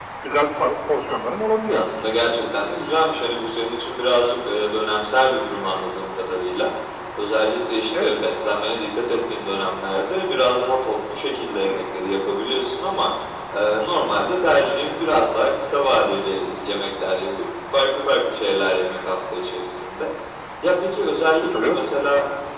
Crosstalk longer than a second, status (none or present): none